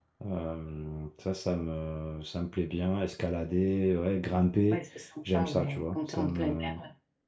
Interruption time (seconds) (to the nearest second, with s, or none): 5 s